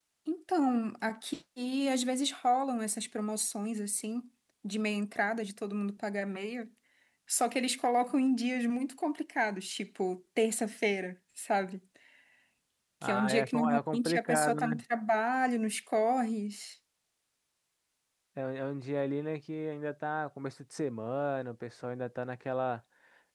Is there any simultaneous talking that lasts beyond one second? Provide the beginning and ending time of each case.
13.0-14.8

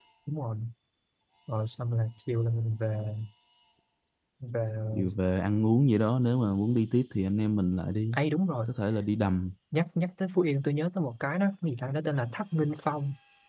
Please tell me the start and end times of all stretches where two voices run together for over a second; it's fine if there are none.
none

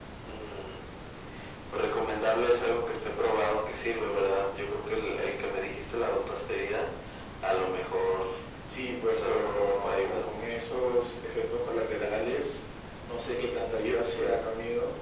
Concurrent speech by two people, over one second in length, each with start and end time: 9.1-10.4

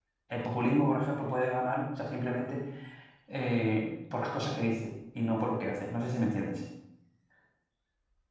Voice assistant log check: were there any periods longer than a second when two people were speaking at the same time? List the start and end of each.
none

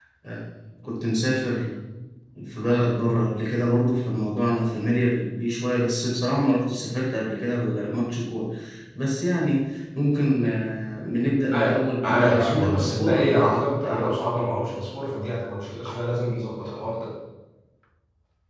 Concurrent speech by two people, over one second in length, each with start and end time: 11.5-14.2

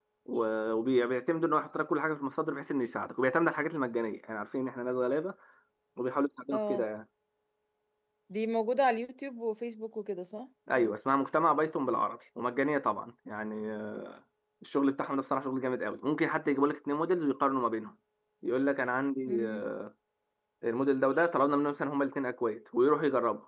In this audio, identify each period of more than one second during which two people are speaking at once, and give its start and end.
none

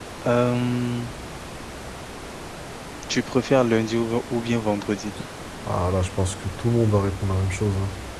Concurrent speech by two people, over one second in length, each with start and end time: none

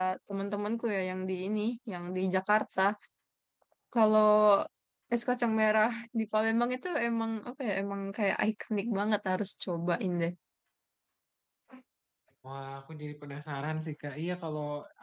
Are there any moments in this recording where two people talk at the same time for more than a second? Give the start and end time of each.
none

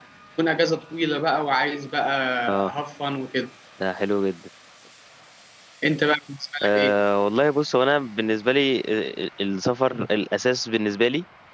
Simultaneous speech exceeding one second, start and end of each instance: none

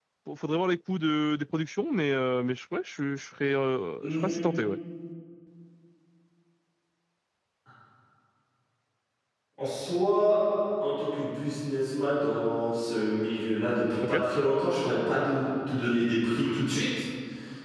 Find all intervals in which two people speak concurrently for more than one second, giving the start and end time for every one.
none

